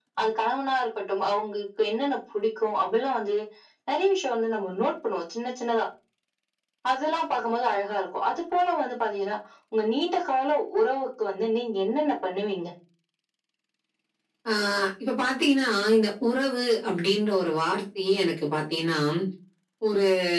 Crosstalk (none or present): none